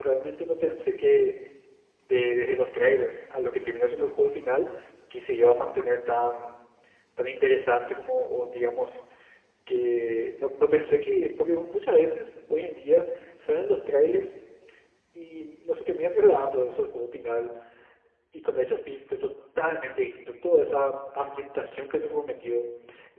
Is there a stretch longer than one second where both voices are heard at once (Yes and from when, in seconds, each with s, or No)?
No